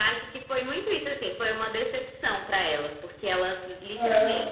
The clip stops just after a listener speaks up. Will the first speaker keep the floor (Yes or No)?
Yes